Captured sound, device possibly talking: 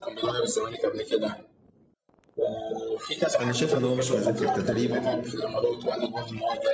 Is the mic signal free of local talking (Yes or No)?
No